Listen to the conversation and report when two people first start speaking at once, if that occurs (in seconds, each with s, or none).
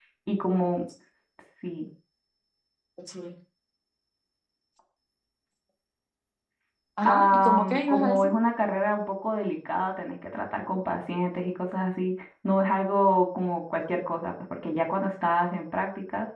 7.1 s